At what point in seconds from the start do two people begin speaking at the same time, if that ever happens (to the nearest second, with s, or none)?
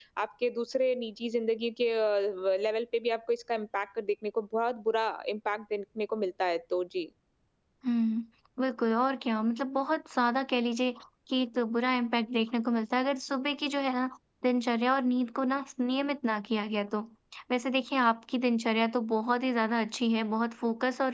none